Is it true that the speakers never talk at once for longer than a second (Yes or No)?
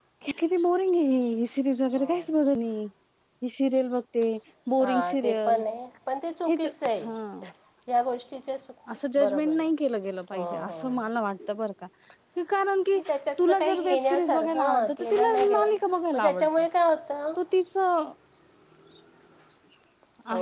No